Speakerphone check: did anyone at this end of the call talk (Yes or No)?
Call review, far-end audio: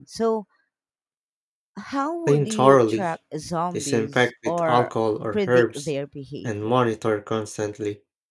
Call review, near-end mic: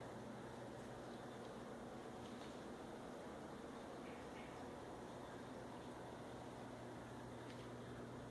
No